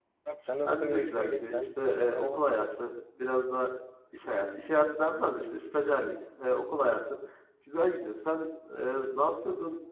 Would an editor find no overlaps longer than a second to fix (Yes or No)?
No